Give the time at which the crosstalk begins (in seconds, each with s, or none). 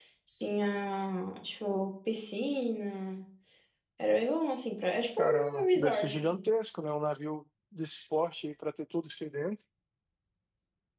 5.2 s